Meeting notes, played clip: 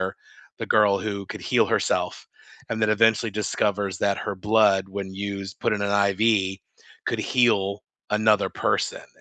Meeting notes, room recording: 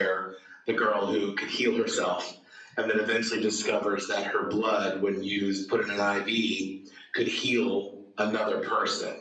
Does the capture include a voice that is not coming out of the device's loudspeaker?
No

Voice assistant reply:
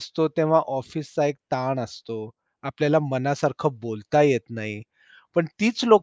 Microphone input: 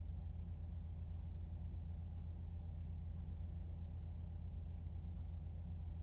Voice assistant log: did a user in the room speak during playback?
No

